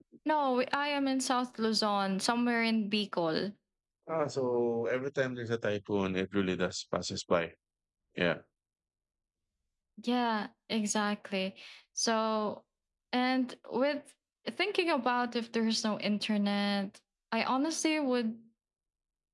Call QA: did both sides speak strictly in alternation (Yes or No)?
Yes